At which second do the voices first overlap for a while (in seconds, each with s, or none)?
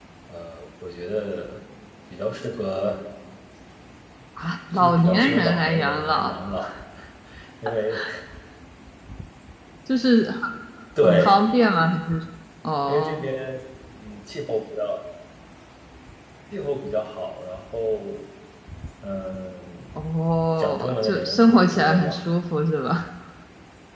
4.8 s